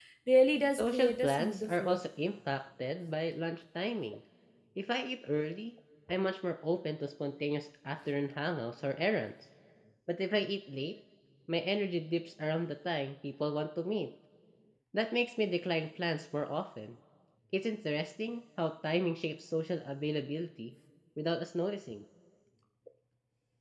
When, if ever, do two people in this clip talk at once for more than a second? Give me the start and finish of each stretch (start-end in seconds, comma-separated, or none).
0.7-2.0